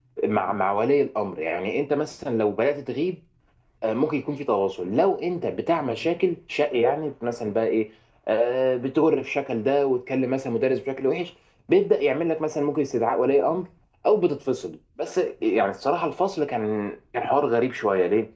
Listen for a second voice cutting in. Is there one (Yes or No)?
No